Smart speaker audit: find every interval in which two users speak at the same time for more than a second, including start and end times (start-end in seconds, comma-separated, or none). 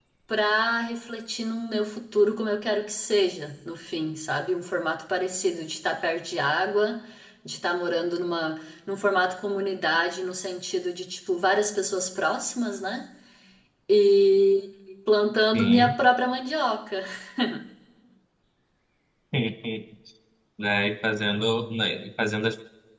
none